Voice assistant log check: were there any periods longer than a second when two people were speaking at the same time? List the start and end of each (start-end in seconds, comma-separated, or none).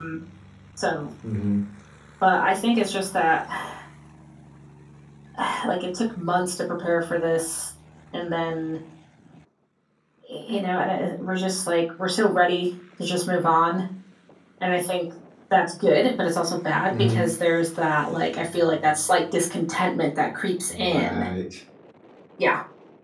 none